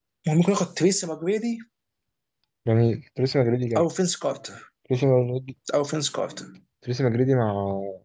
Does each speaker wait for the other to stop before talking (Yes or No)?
Yes